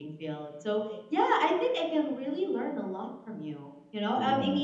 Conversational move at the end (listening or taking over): listening